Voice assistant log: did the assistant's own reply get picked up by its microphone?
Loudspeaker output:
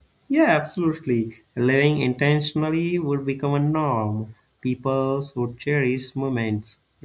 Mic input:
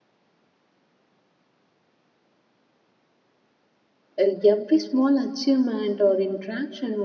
No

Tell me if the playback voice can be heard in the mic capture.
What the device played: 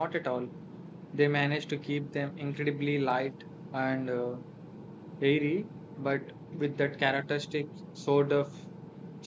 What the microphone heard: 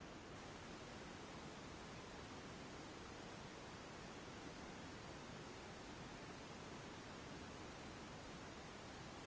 No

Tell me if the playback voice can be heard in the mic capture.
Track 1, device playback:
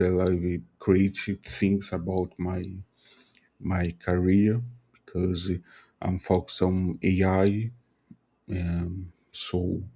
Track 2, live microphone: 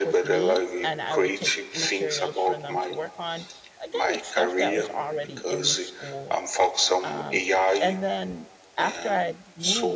Yes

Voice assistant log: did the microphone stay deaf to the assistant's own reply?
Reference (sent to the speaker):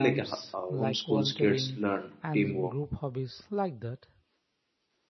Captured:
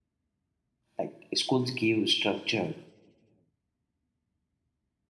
Yes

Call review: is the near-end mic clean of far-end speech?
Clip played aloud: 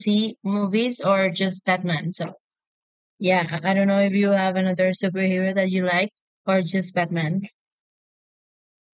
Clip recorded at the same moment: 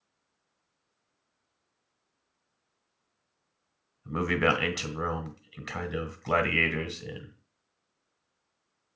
Yes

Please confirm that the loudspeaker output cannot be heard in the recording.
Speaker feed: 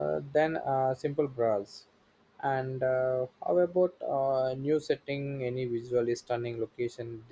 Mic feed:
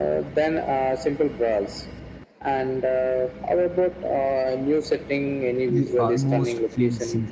No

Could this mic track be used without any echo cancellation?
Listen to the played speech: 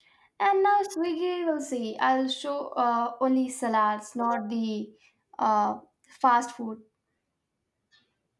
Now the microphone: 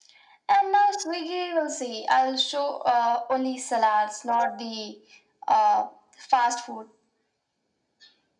No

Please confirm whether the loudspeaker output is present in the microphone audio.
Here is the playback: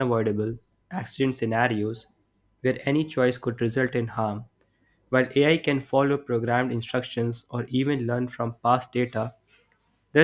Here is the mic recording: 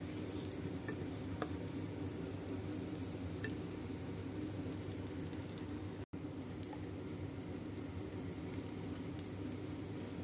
No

